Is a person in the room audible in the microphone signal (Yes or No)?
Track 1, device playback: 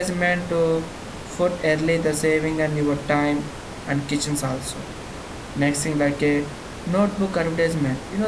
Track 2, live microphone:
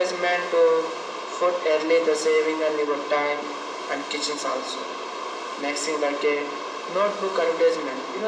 No